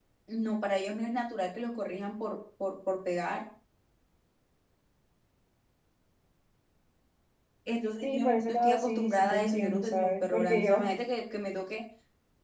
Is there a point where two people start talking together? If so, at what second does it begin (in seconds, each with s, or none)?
8.0 s